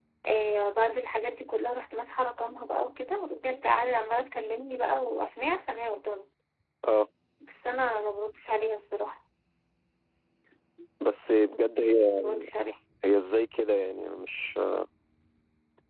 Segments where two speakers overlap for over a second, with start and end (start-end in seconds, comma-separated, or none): none